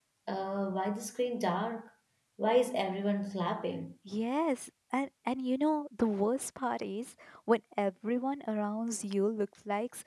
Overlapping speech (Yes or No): No